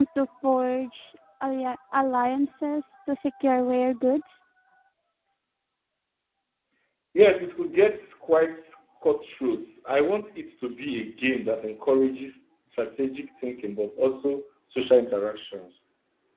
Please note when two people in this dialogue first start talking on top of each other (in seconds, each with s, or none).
none